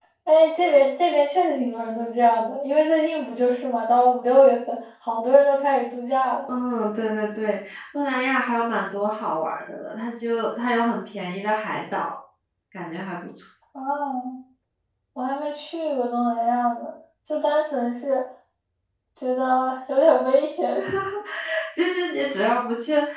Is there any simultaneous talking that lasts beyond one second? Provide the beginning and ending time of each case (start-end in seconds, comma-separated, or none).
none